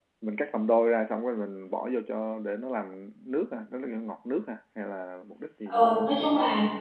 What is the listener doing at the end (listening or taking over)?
taking over